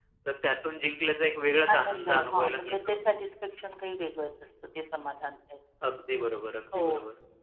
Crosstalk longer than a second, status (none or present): present